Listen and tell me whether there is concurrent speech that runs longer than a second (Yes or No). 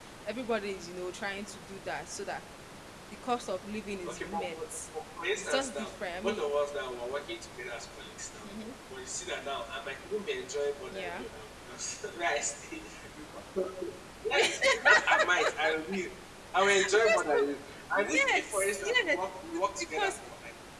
Yes